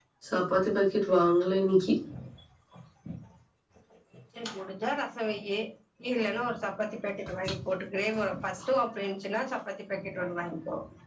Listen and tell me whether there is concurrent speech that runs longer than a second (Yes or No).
No